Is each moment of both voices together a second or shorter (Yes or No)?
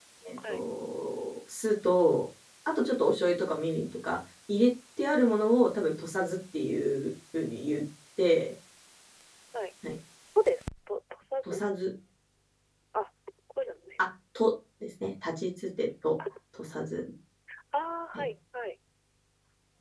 Yes